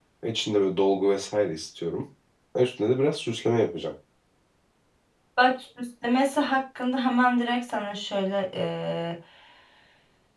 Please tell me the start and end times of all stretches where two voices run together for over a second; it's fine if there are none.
none

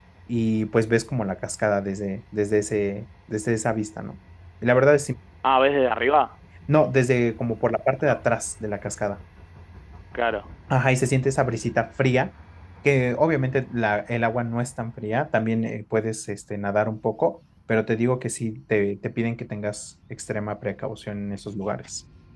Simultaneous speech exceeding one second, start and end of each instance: none

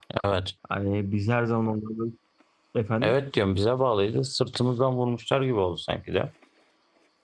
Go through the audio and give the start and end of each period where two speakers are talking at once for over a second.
none

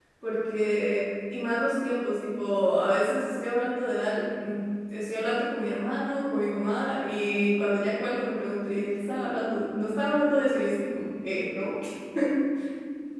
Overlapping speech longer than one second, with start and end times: none

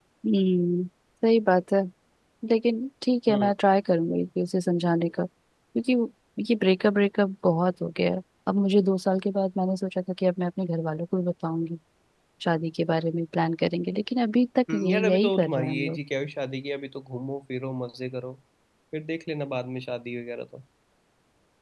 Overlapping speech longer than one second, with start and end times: 14.7-16.0

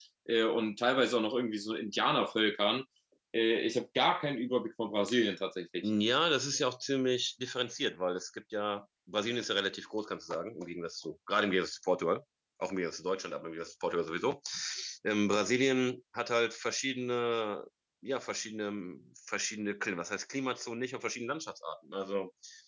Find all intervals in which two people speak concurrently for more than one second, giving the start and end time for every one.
none

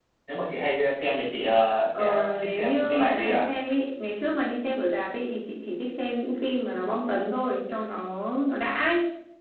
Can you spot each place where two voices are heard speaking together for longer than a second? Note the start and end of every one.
2.0-3.4

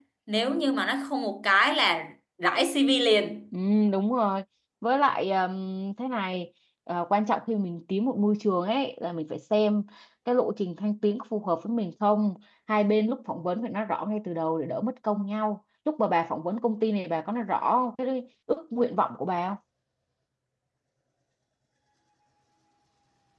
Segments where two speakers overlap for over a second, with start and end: none

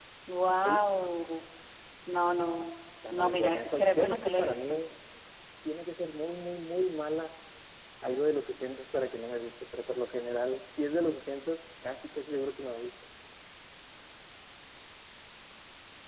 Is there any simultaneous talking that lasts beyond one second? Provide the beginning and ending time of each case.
3.1-4.8

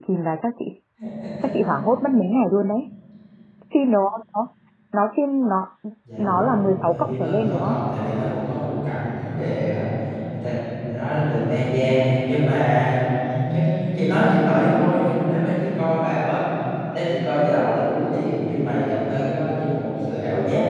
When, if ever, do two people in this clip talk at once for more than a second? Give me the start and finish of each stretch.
6.2-7.8

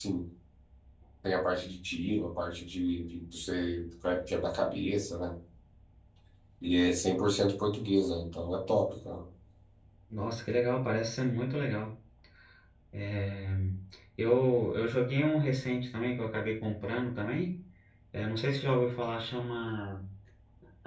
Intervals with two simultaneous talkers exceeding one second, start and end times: none

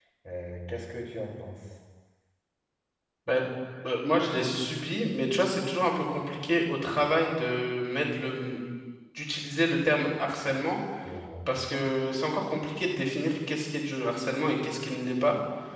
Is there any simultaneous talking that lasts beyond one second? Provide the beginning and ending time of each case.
none

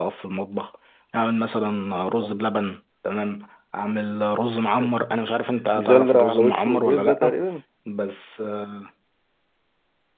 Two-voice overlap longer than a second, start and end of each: 5.8-7.3

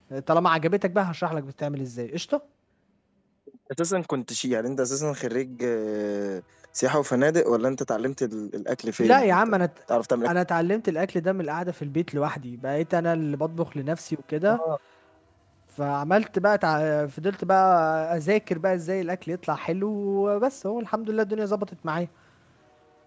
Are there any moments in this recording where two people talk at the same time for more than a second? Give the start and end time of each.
none

